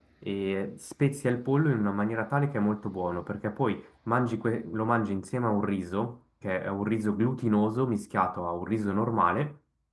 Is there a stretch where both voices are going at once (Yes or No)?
No